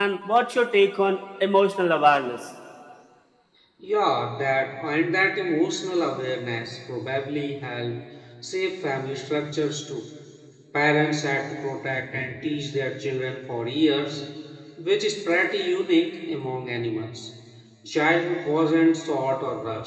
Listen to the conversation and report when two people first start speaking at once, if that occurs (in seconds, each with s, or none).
none